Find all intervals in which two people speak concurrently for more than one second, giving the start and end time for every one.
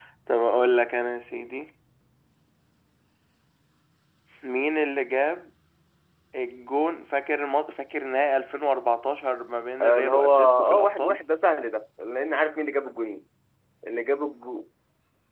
9.8-11.2

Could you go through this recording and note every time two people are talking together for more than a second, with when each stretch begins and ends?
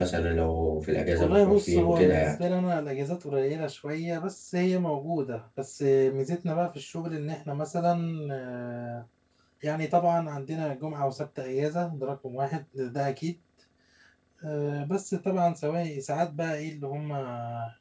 1.2-2.4

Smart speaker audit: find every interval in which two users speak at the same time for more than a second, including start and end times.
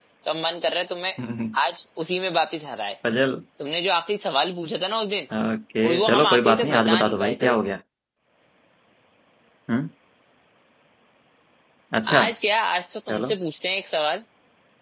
5.8-7.5

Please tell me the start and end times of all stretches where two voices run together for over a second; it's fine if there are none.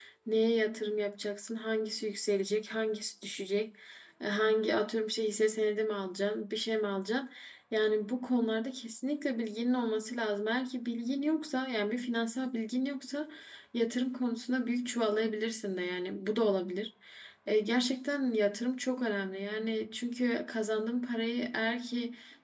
none

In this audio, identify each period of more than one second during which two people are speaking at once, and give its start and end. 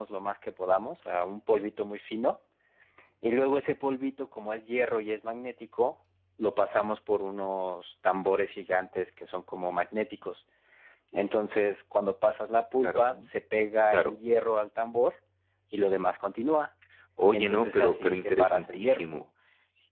17.3-19.1

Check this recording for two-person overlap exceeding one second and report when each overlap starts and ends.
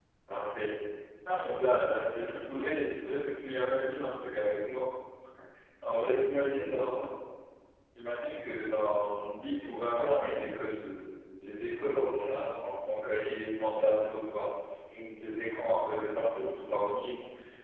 1.5-2.7

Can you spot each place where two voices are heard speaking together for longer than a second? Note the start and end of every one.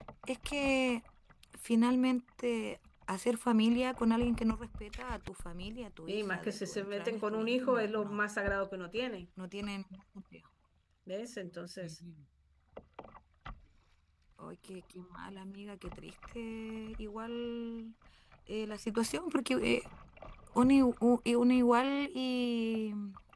6.1-8.2

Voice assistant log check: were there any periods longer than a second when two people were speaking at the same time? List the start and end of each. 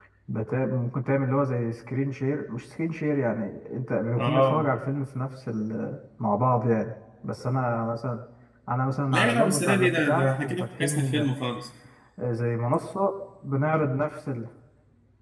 9.1-11.3

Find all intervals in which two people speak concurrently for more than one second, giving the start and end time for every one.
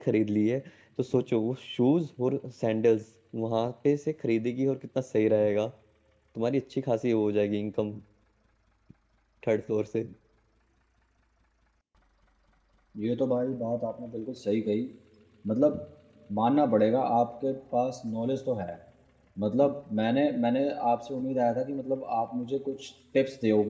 none

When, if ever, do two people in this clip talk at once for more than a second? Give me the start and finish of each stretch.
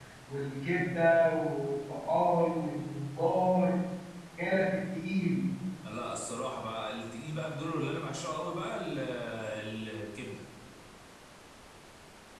none

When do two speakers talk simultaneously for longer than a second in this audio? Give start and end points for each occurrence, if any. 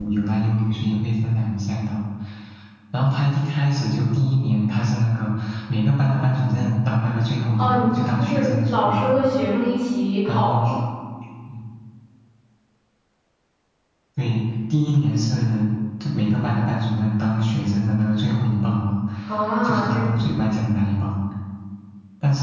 7.6-9.2

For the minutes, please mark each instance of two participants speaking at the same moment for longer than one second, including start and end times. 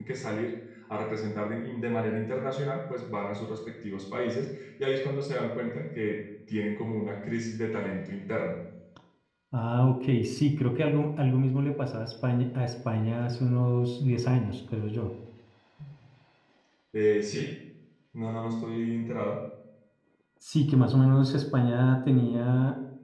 none

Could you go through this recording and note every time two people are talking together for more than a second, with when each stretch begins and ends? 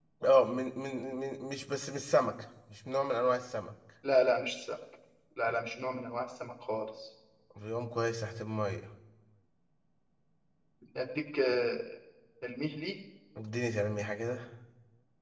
none

